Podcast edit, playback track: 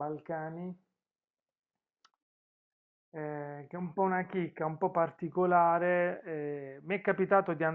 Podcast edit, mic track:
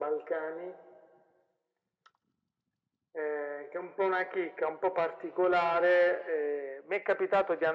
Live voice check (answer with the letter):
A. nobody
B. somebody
A